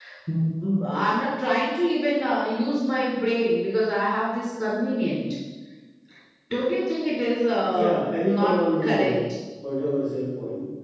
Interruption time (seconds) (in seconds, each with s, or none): 7.7 s